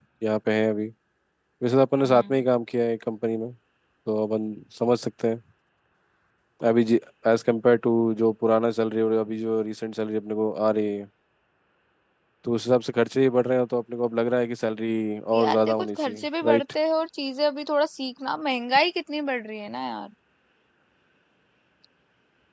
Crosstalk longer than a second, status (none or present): present